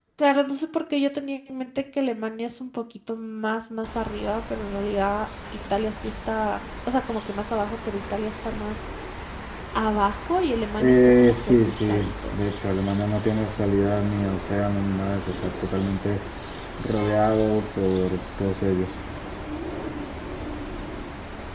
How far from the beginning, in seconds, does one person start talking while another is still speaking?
10.8 s

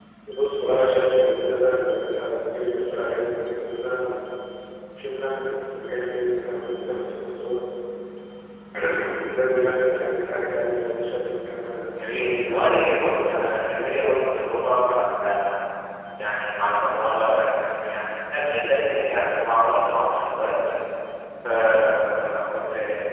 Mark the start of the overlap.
12.0 s

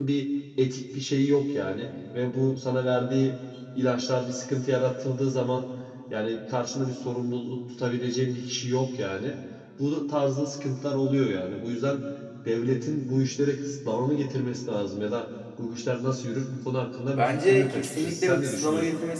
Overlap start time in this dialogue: 17.1 s

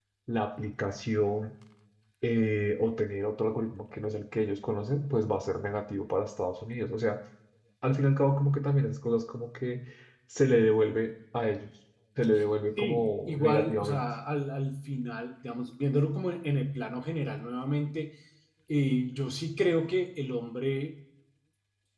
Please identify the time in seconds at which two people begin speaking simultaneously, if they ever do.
12.8 s

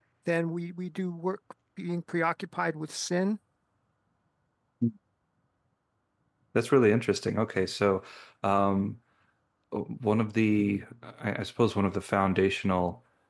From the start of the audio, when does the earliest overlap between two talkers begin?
none

